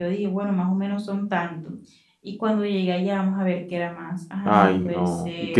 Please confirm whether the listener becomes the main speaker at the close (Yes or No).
Yes